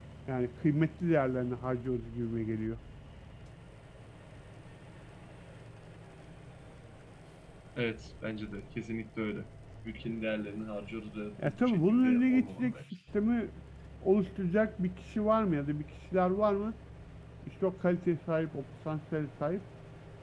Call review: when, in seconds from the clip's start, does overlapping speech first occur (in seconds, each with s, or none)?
11.4 s